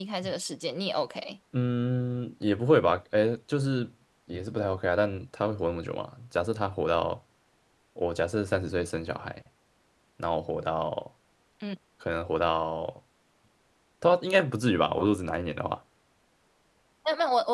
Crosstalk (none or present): none